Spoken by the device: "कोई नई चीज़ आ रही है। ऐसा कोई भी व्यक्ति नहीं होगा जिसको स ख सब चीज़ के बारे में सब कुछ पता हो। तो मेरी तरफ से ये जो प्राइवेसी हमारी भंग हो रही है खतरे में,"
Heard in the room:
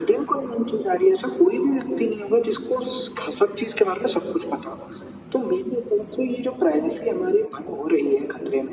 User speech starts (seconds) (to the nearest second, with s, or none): none